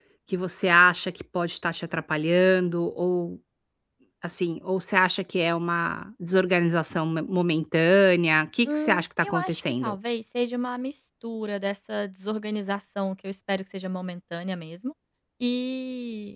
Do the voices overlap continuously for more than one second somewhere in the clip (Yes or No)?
Yes